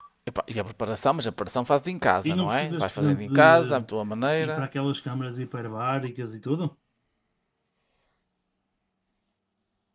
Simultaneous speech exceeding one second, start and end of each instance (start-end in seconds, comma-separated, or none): 2.2-3.9